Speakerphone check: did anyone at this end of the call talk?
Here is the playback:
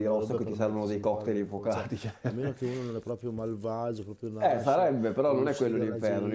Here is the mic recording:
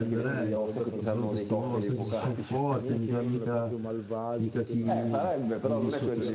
Yes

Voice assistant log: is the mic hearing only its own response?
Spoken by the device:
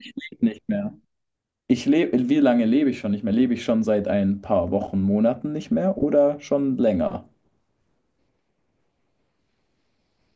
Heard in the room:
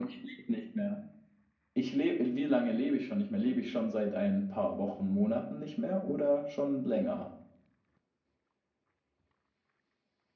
Yes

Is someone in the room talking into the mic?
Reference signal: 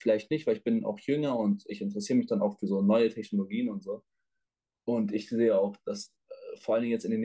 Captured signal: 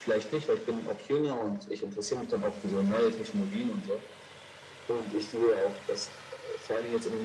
No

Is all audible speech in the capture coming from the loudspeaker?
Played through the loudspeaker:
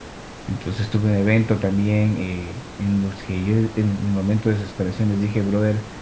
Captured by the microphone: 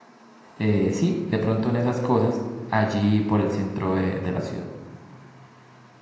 No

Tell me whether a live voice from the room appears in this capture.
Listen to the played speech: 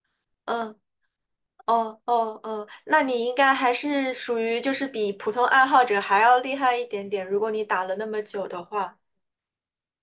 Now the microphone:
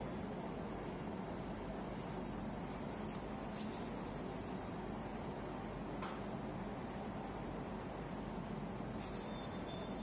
No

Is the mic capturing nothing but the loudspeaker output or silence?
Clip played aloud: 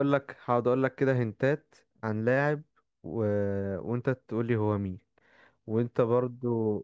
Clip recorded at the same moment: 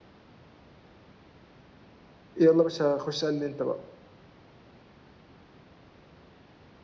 No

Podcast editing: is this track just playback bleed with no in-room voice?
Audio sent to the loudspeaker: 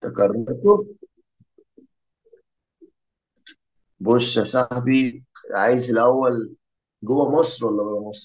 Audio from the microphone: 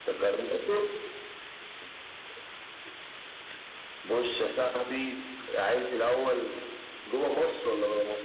Yes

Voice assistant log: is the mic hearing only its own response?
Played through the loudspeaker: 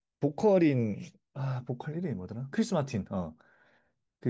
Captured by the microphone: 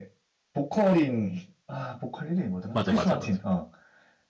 No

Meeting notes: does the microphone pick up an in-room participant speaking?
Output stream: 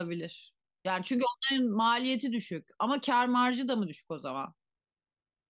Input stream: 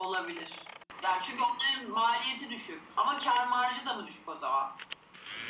No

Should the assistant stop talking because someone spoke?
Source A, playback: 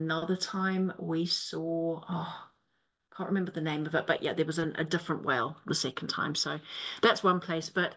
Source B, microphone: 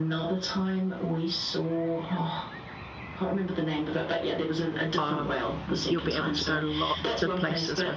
Yes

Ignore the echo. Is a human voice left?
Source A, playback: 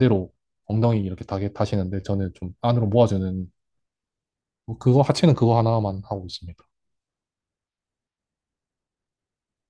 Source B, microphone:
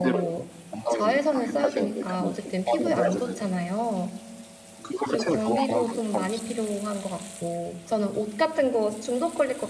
Yes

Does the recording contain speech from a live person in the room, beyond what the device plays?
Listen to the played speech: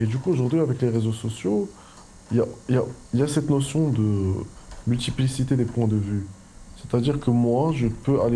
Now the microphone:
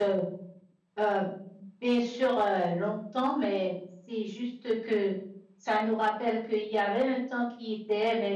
Yes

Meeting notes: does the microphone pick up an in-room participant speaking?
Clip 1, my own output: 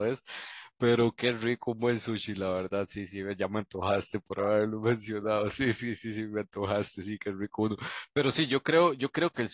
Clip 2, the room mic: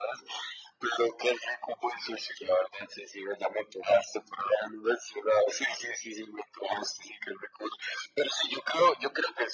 No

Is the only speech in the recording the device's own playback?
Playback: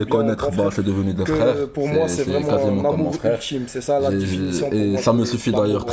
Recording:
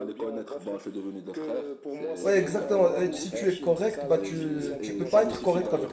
No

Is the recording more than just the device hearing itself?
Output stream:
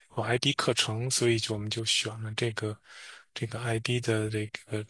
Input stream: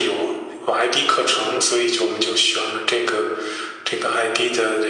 No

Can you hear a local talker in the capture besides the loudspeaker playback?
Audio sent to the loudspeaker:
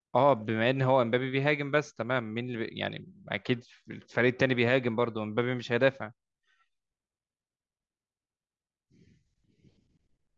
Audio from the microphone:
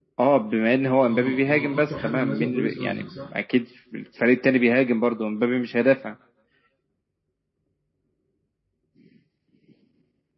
Yes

